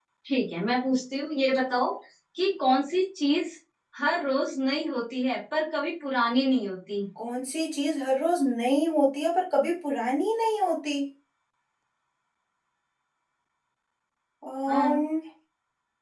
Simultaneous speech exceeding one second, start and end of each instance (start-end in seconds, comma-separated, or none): none